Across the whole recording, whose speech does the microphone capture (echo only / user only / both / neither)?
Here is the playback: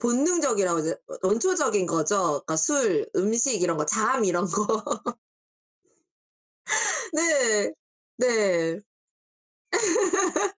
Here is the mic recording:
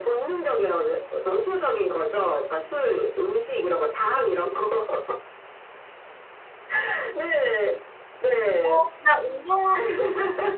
both